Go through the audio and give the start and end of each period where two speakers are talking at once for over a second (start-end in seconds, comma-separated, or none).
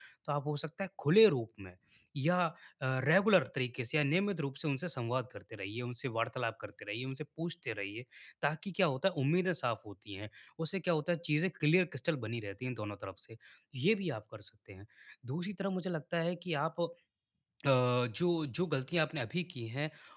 none